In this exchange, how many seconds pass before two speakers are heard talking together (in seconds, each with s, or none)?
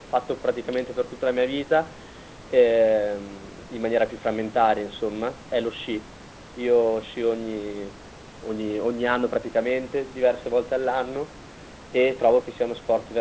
none